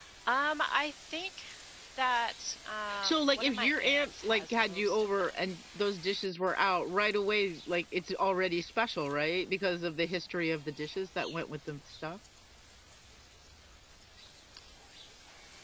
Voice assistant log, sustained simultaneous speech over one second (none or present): present